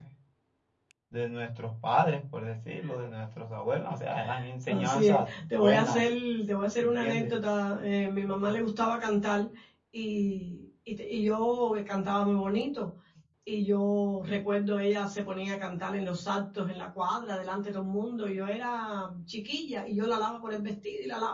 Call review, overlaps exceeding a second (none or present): present